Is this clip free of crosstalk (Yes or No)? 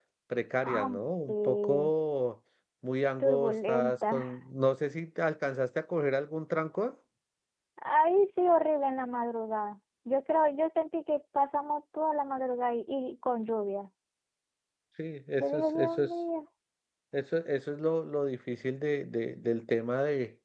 No